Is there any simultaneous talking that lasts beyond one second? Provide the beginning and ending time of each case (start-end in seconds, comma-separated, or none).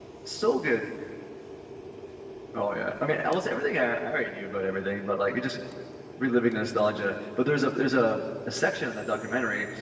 none